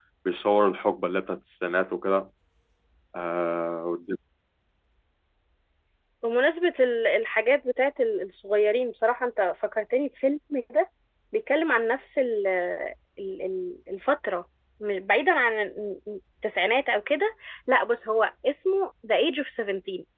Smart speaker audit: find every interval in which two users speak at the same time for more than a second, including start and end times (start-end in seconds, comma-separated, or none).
none